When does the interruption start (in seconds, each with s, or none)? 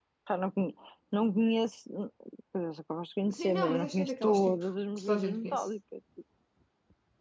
3.3 s